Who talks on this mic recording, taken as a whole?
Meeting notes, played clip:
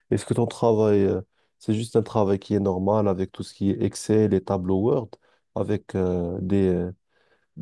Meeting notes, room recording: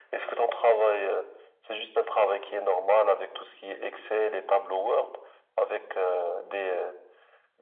echo only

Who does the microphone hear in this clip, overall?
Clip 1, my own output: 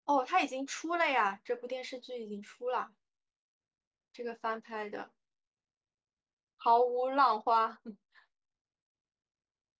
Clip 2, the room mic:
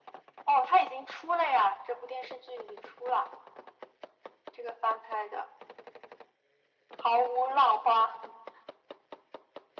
echo only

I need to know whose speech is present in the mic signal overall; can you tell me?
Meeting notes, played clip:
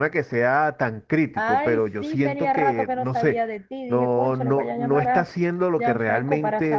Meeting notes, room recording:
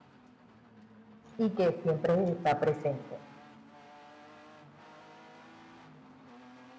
user only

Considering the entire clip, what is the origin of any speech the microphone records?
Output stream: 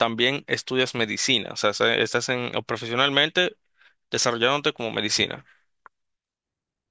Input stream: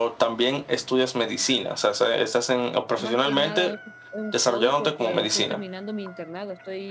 both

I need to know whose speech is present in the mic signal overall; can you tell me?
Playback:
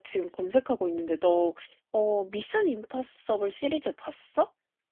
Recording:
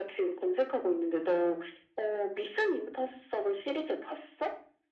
echo only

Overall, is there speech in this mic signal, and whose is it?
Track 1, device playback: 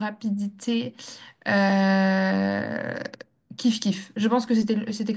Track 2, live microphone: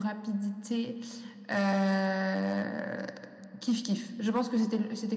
echo only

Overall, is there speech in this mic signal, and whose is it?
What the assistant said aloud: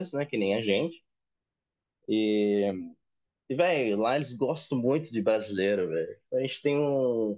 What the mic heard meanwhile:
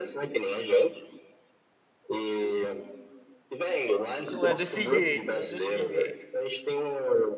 both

